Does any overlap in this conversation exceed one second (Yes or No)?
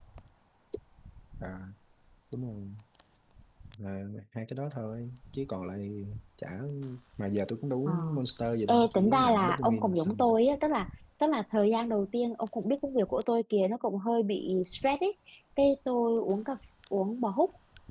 Yes